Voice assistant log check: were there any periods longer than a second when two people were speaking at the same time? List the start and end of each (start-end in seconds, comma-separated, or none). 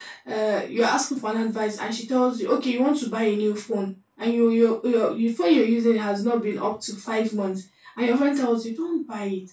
none